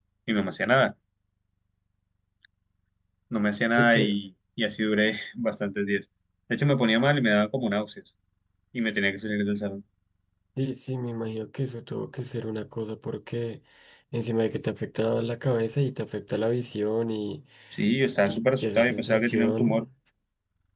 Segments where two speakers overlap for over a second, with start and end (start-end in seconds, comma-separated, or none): 18.2-19.9